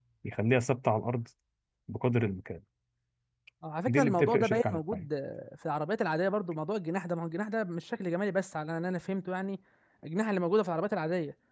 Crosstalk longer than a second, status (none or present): present